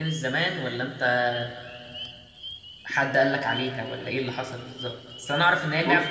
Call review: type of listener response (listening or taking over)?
listening